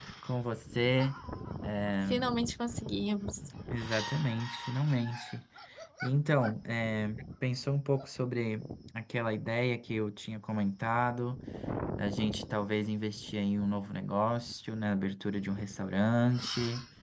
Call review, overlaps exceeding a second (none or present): none